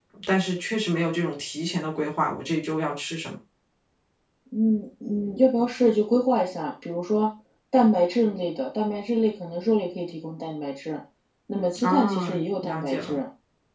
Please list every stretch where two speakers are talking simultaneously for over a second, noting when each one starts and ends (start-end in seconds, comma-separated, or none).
11.8-13.2